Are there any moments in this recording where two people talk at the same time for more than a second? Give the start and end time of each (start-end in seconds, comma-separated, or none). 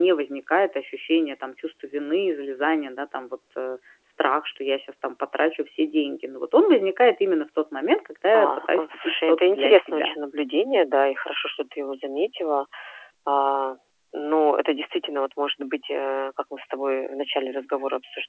8.3-10.1